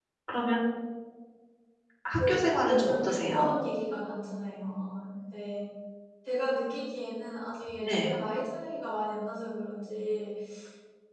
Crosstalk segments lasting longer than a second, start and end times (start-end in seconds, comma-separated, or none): 2.2-3.5